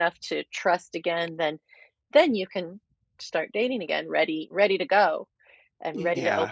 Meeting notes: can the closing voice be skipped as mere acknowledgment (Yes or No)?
No